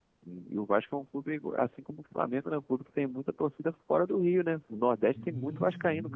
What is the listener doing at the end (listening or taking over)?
taking over